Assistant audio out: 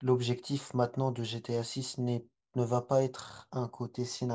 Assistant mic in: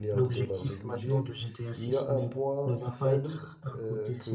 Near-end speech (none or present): present